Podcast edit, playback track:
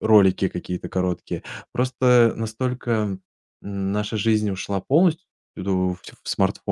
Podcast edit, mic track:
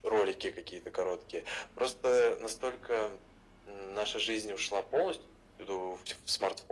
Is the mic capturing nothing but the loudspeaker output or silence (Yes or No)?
Yes